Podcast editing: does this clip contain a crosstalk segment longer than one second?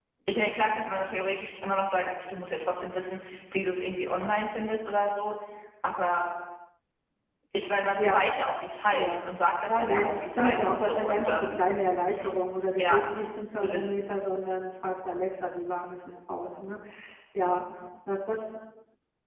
Yes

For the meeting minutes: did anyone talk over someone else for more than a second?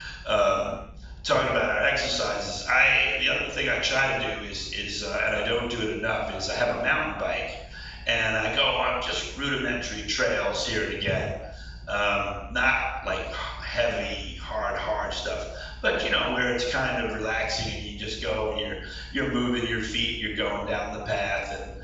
No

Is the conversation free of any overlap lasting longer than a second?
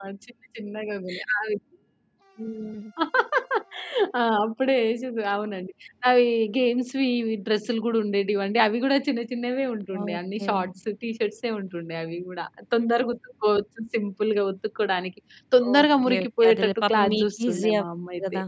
No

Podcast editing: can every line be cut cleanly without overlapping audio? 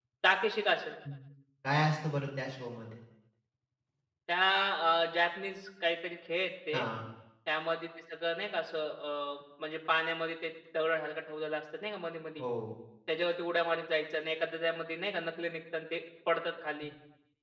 Yes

